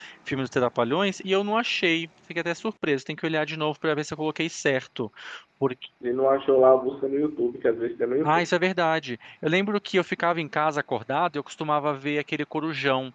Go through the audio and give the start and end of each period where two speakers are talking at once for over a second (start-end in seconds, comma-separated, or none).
none